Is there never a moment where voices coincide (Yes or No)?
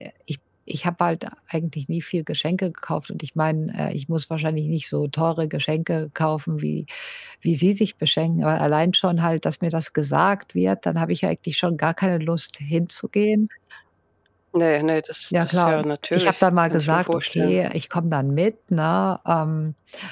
No